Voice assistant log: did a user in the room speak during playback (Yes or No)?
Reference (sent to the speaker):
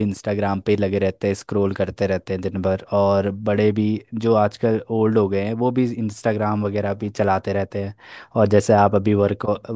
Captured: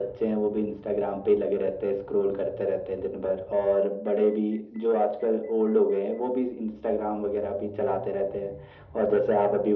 No